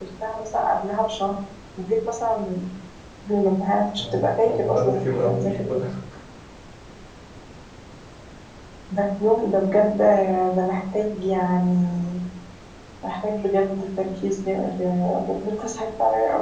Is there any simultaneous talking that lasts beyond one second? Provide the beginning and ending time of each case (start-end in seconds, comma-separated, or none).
4.0-5.8